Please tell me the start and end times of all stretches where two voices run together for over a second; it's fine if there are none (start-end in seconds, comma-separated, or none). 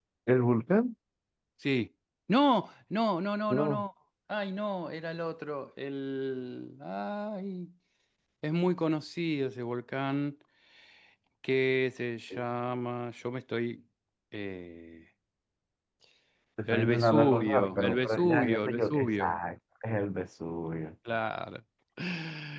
16.7-19.4